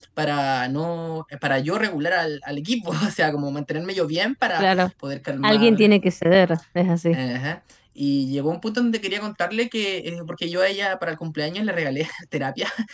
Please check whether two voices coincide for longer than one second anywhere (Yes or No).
No